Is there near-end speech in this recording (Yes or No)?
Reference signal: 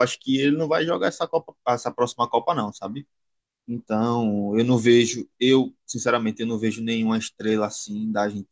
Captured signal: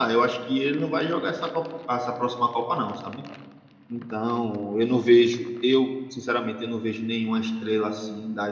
No